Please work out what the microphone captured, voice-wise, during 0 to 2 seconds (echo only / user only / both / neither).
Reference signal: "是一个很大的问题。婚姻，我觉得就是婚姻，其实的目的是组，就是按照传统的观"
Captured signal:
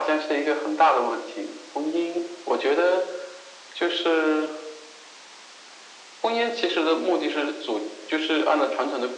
echo only